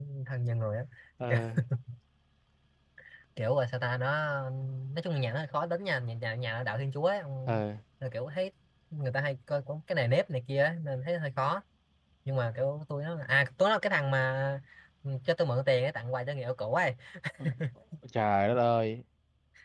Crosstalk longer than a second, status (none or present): none